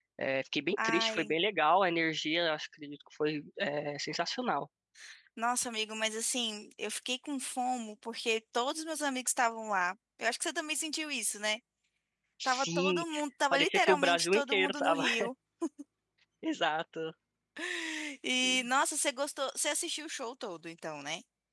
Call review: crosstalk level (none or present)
present